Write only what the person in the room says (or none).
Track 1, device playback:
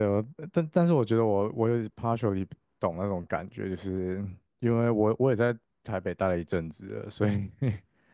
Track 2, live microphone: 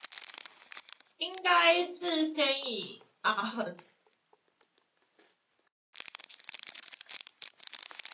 应该是先以阿恒